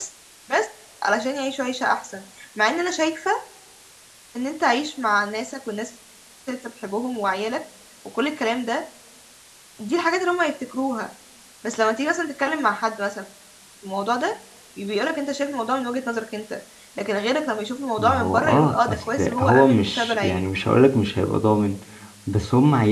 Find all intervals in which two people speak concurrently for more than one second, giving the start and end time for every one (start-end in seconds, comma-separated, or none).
18.0-20.5